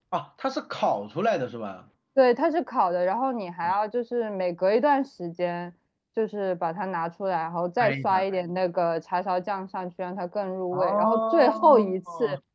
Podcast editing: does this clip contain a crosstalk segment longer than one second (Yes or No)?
Yes